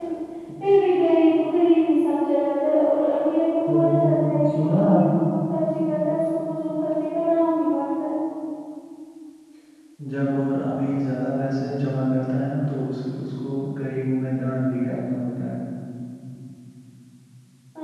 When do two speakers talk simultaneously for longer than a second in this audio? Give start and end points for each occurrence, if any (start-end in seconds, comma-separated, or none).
3.7-5.1